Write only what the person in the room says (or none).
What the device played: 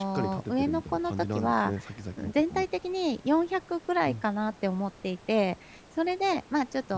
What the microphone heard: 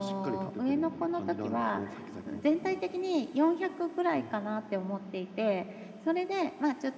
none